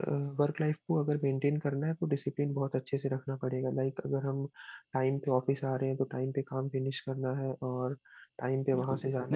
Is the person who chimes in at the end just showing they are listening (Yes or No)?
No